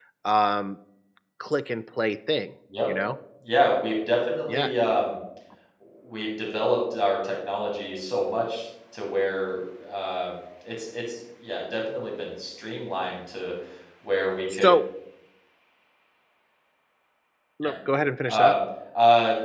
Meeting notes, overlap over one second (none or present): none